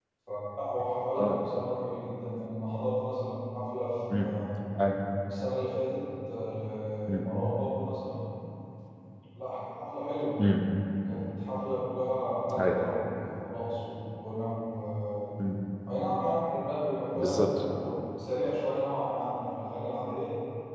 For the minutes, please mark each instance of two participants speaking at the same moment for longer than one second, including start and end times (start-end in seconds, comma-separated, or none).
none